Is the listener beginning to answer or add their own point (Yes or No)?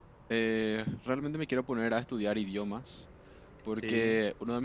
No